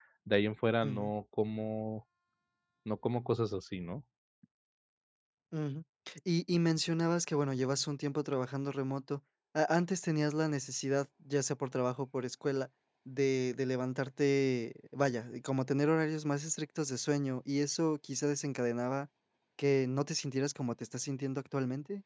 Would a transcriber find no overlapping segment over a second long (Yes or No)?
Yes